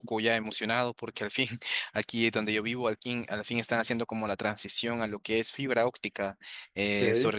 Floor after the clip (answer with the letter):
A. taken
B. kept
B